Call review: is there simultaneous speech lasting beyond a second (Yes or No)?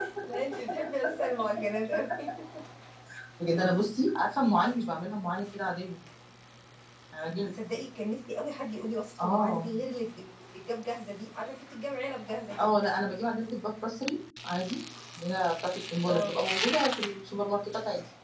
No